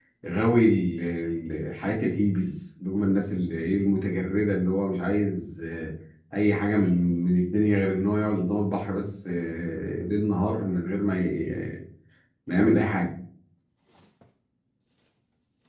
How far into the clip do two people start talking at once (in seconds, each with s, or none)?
none